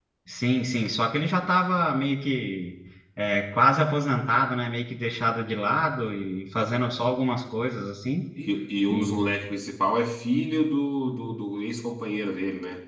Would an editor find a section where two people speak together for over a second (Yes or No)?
No